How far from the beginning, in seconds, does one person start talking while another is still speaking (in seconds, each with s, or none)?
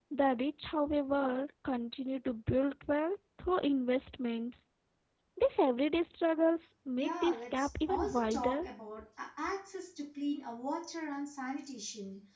7.0 s